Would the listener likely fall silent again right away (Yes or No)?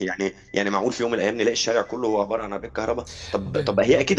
Yes